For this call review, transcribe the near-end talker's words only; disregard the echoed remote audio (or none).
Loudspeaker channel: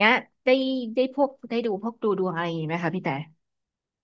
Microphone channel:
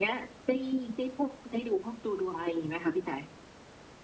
none